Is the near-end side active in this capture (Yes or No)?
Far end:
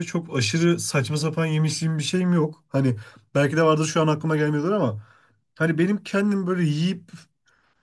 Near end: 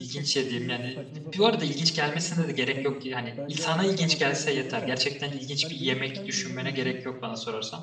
Yes